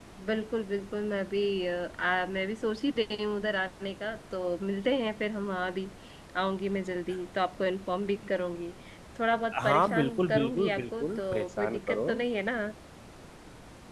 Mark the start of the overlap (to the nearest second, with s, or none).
10 s